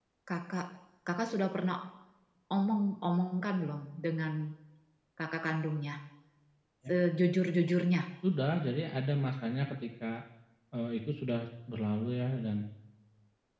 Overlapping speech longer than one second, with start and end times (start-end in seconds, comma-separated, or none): none